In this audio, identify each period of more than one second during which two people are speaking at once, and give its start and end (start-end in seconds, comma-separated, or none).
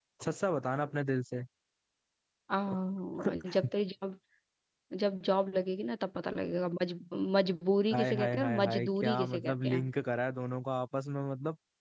7.9-9.8